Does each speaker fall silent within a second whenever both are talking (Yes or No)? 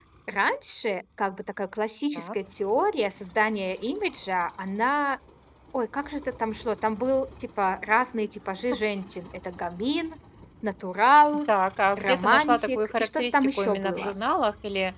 No